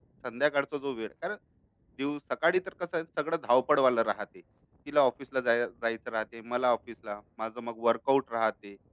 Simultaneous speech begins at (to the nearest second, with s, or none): none